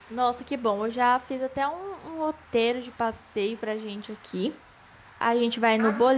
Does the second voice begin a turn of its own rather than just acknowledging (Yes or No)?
No